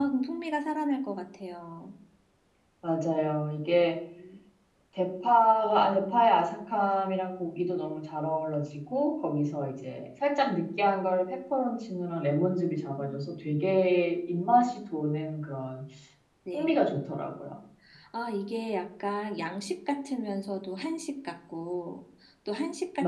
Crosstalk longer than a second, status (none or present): none